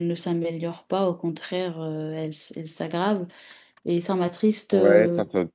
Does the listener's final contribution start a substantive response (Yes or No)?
Yes